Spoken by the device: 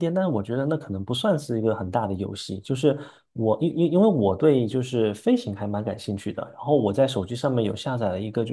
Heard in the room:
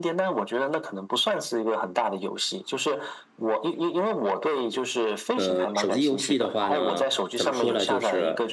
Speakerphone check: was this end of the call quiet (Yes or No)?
No